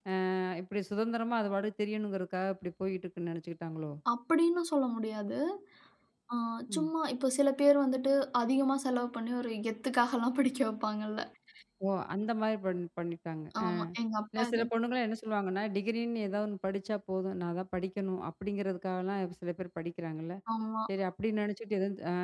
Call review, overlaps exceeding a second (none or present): none